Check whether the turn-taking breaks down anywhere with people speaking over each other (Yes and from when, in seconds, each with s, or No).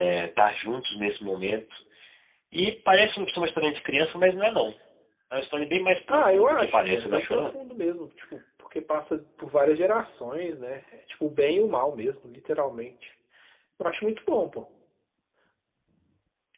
Yes, from 6.1 s